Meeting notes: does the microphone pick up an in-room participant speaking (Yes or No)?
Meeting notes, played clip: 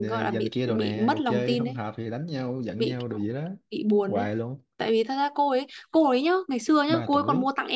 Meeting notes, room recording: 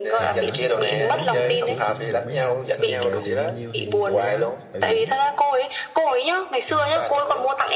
Yes